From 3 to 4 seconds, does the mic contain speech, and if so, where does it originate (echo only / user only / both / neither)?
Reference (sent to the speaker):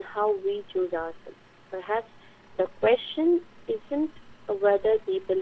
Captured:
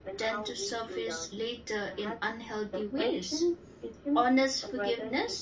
both